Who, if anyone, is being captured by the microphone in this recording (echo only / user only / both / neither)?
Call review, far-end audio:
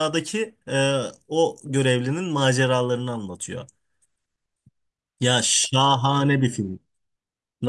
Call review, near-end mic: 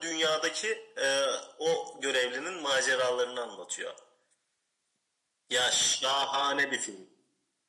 echo only